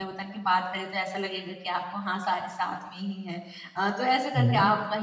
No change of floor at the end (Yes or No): Yes